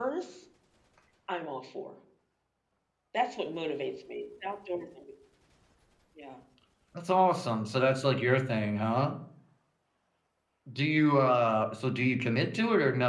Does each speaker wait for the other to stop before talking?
Yes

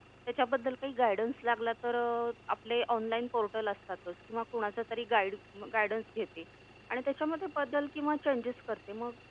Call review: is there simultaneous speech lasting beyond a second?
No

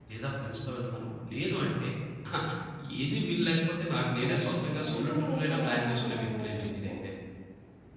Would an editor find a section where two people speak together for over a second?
Yes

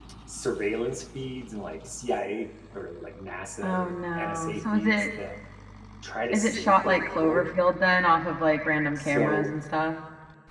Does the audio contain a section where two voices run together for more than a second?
Yes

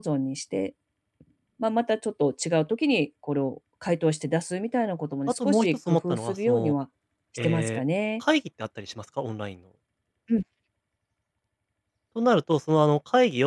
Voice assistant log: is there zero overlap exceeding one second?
No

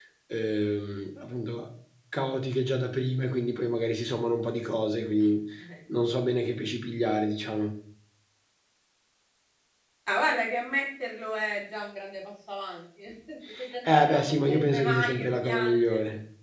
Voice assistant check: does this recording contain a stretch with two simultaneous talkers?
Yes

